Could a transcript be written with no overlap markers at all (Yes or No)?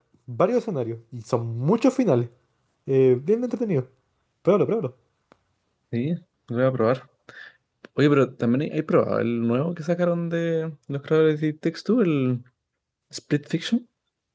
Yes